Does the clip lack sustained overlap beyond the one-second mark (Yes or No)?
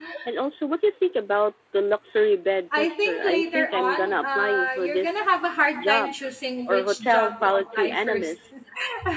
No